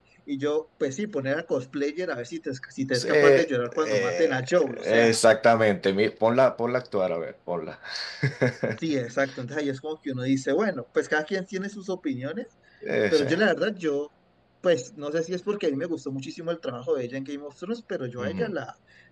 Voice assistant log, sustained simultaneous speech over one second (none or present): present